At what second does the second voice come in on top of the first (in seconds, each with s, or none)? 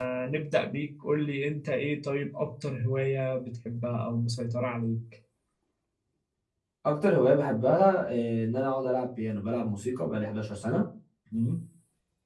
none